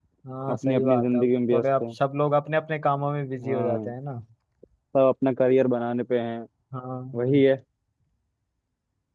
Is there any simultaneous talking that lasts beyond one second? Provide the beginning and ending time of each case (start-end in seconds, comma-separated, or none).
0.5-1.8